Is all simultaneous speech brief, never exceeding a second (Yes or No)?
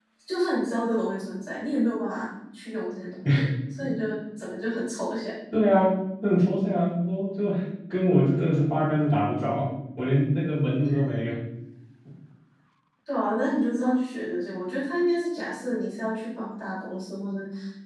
Yes